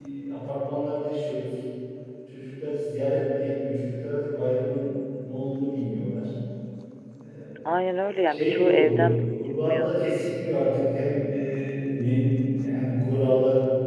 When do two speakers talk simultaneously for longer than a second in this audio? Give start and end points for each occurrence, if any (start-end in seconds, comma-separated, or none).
8.3-9.9